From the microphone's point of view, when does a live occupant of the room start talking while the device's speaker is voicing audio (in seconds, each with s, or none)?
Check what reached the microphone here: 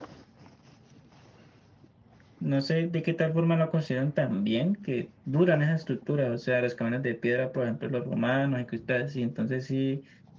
2.4 s